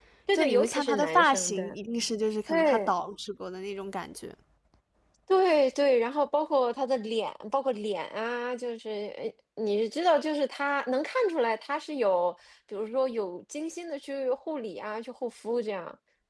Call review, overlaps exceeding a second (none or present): present